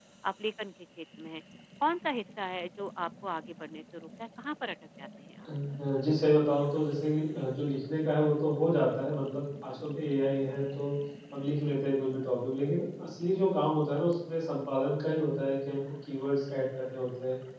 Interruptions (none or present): none